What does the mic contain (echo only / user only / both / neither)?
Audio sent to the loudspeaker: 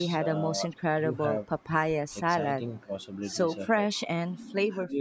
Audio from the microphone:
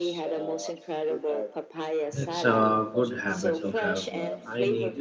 both